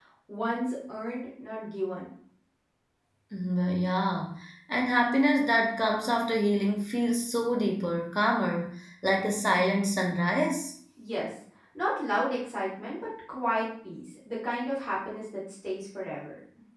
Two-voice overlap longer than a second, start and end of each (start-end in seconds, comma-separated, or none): none